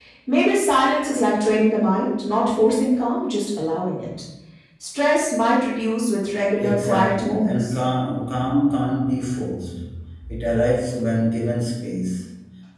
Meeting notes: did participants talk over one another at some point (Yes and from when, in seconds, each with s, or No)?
Yes, from 6.6 s